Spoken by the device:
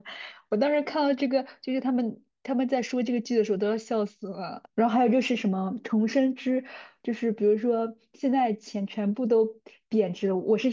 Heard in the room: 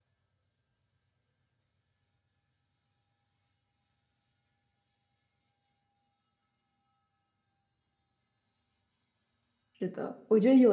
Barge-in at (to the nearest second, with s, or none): 10 s